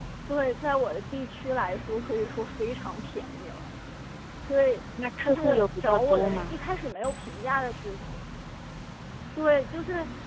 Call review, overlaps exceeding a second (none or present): present